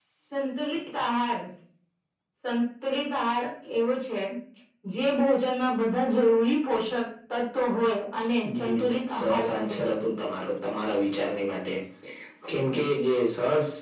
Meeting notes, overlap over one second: present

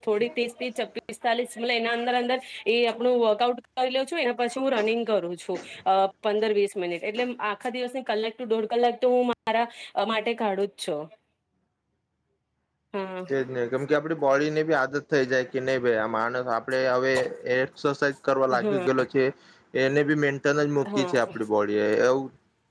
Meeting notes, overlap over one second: none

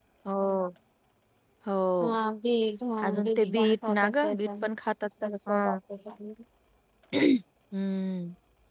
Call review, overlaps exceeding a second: present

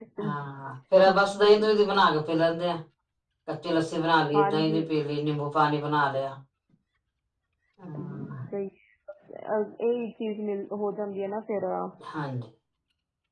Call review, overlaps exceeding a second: none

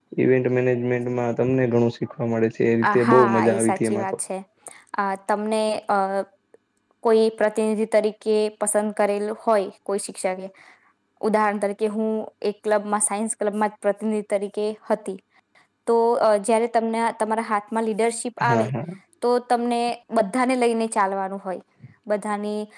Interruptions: present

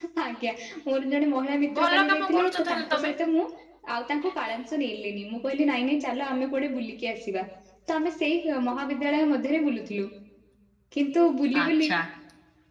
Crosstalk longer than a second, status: present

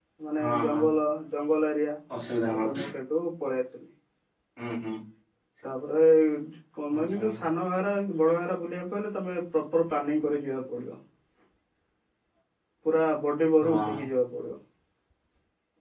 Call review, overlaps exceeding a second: none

